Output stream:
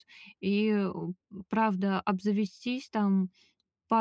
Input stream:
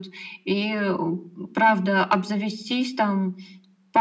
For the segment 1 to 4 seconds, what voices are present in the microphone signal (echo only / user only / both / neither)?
echo only